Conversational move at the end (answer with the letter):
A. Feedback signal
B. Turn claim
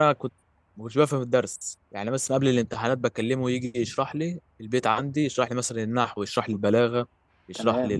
A